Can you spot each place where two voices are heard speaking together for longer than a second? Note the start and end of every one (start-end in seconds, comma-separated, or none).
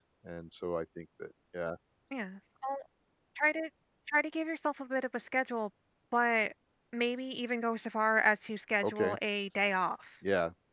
none